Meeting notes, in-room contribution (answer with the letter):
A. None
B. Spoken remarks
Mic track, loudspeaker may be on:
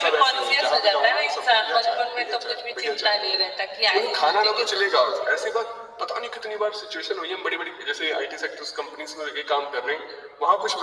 A